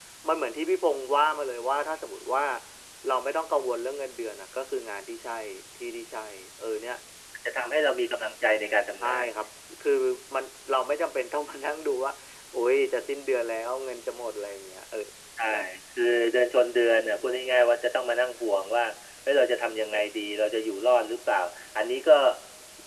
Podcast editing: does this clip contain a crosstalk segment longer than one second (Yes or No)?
No